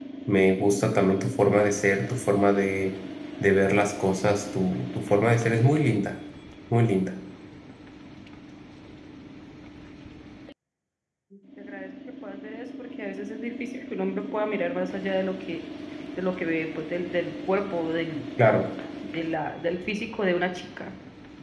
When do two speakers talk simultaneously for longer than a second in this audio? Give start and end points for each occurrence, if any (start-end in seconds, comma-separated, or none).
none